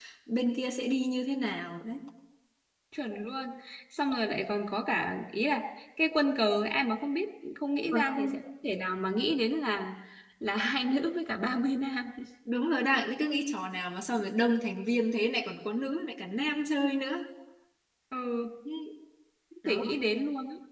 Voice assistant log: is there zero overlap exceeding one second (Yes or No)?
Yes